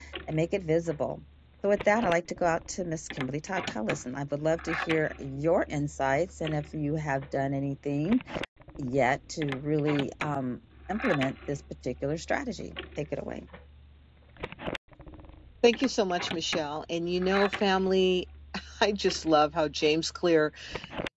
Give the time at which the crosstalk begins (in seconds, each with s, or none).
none